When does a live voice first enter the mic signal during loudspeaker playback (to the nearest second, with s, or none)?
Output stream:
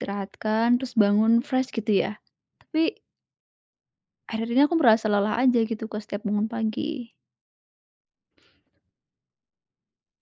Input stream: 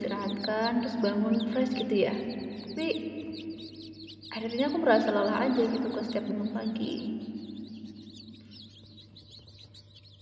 none